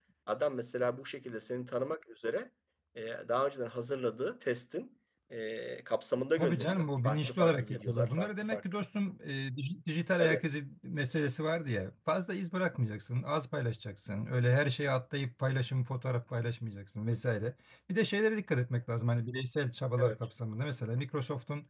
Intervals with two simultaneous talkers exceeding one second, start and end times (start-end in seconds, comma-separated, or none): 6.4-8.6